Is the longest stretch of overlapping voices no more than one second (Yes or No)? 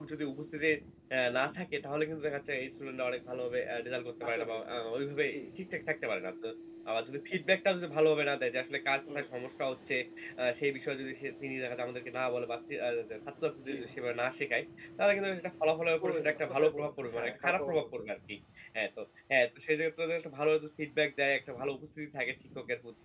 No